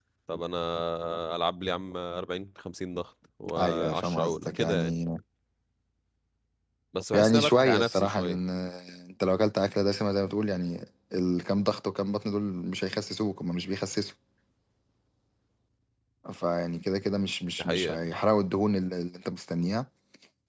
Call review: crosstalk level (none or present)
present